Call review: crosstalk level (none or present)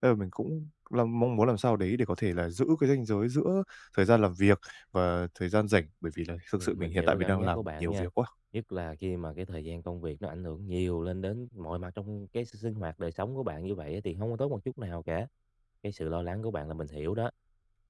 present